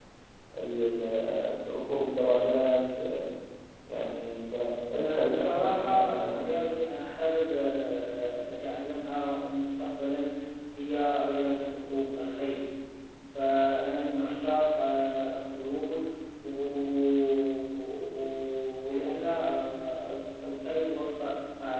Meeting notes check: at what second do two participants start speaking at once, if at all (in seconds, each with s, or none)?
5.0 s